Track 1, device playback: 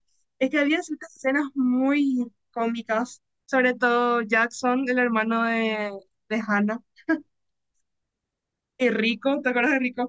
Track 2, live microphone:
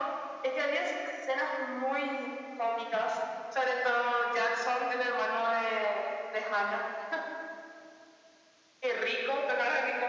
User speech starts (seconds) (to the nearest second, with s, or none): none